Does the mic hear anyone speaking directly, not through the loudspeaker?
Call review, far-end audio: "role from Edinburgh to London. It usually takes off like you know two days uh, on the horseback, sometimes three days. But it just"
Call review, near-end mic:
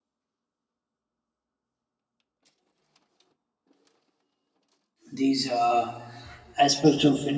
Yes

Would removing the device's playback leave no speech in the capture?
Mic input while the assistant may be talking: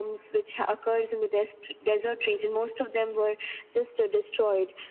Yes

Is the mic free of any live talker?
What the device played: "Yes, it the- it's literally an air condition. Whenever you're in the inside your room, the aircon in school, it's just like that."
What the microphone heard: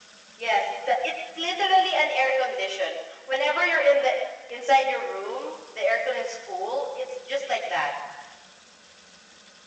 Yes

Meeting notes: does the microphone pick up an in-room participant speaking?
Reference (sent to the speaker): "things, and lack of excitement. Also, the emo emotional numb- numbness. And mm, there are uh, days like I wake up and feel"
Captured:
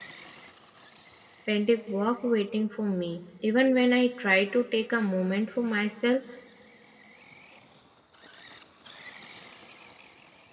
Yes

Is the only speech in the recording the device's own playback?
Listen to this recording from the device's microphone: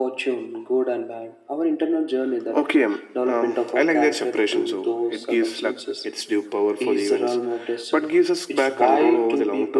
Yes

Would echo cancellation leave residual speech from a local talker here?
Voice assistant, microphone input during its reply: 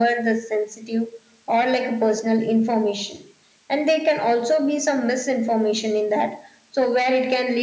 No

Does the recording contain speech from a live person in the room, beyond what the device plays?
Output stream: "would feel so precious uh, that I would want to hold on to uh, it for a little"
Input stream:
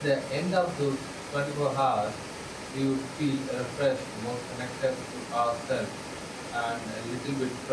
Yes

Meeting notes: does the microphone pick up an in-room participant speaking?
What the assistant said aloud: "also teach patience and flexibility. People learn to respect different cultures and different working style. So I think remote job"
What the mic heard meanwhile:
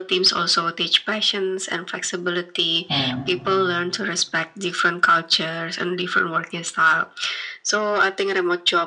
Yes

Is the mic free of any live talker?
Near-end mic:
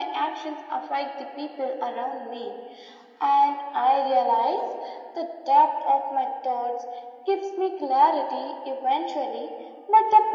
Yes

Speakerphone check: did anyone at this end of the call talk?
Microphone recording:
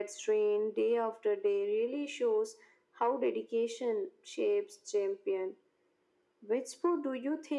No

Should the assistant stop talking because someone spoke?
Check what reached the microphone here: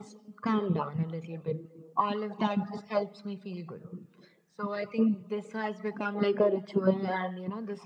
No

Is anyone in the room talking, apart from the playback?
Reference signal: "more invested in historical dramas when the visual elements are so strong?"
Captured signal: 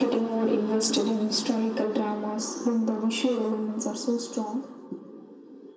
No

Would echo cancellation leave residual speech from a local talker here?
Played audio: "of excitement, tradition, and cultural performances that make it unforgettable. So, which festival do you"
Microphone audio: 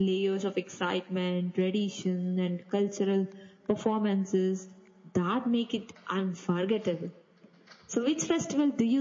No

